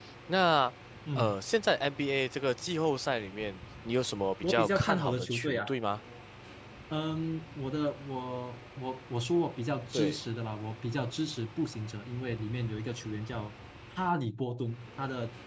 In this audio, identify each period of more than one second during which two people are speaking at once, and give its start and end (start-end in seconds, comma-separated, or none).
4.4-5.7